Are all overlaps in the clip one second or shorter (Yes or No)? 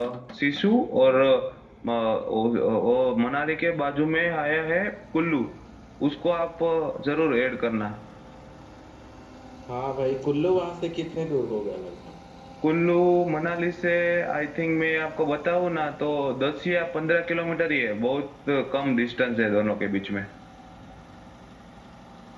Yes